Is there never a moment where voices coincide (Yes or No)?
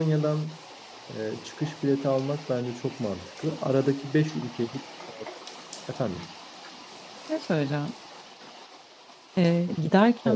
Yes